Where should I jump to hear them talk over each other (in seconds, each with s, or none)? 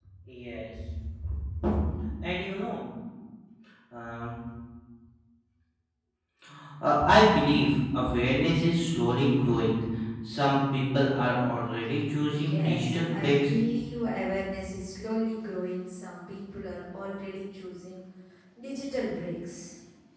12.3 s